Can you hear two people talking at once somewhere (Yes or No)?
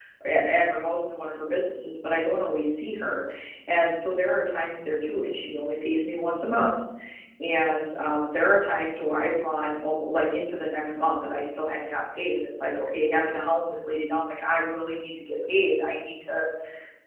No